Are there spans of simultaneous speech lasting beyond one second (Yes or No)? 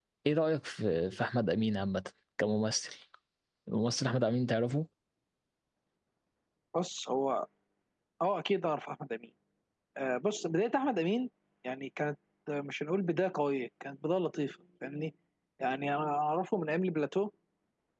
No